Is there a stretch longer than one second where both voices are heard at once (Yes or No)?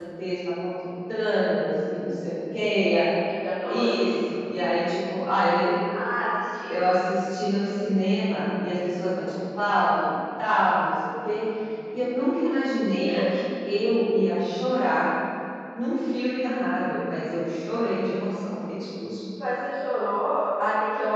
No